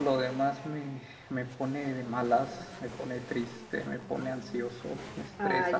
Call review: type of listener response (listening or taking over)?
taking over